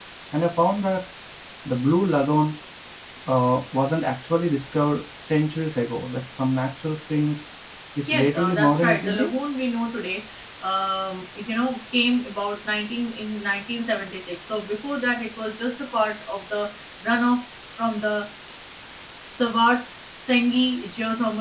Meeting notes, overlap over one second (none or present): present